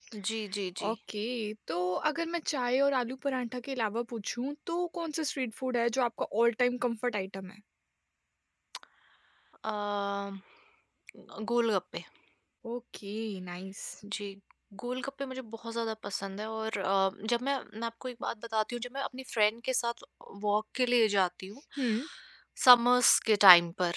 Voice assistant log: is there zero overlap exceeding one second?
Yes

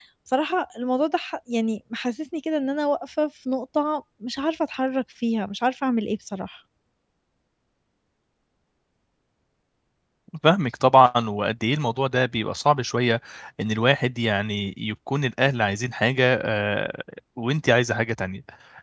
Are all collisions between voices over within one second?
Yes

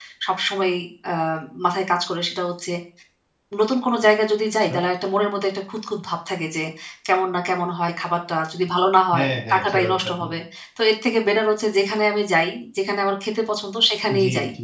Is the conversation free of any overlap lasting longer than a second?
No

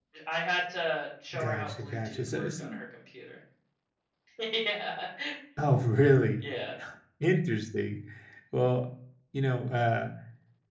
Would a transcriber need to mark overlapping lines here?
Yes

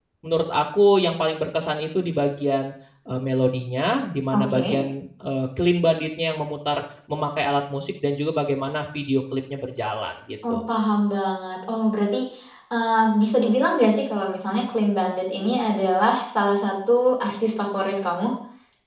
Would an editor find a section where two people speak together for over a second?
No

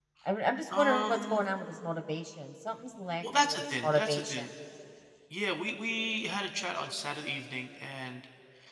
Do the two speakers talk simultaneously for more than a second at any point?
Yes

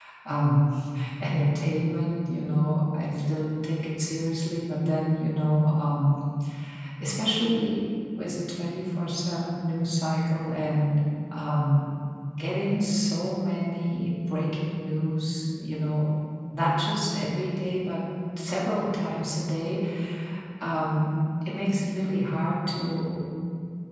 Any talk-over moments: No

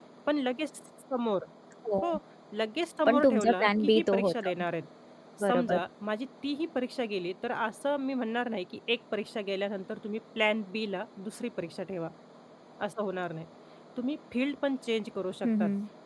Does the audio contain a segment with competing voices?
Yes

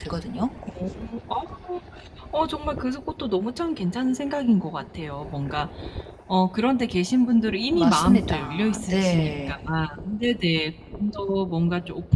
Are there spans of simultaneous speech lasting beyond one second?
Yes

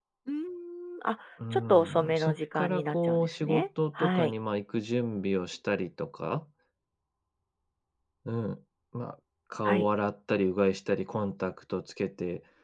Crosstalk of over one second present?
Yes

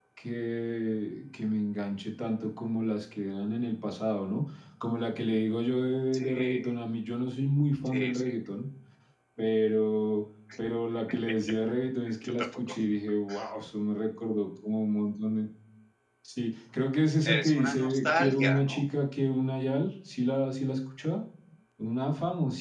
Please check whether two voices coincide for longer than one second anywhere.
Yes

